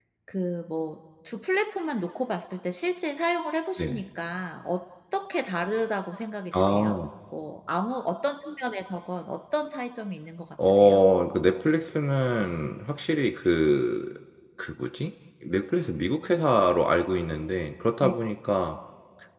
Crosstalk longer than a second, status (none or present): none